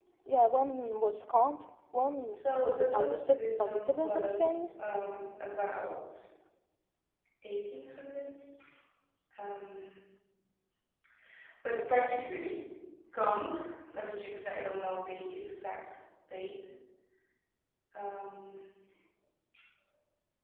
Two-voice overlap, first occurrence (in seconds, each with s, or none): 2.3 s